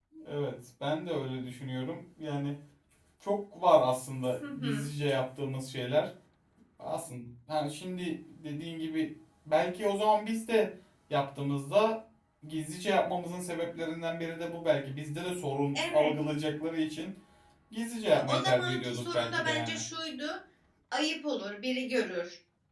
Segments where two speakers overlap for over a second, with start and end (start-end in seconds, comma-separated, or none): 18.1-19.8